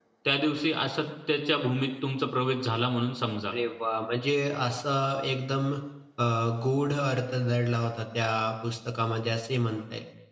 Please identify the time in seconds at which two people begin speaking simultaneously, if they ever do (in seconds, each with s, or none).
none